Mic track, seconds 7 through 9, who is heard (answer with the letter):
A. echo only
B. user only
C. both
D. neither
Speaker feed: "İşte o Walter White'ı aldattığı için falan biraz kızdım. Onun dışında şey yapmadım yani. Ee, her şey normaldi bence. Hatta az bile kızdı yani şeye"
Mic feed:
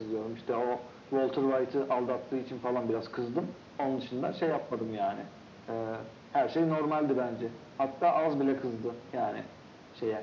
A